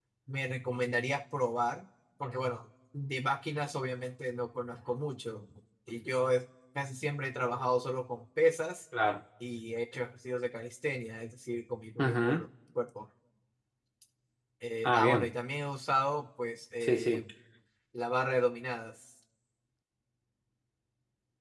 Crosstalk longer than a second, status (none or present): none